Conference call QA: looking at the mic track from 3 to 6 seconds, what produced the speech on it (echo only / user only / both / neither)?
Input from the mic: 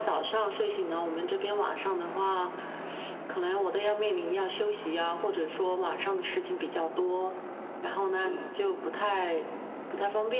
echo only